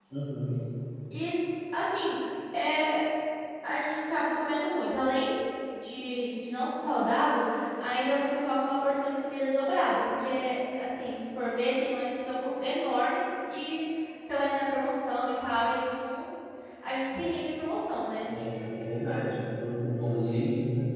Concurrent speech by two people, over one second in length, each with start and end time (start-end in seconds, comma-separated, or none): none